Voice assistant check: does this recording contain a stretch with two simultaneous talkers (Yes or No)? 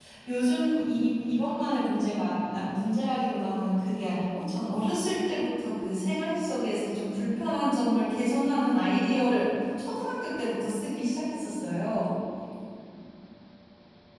No